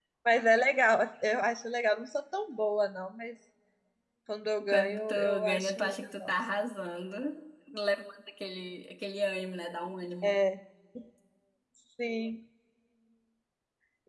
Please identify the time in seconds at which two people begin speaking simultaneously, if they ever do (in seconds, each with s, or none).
4.7 s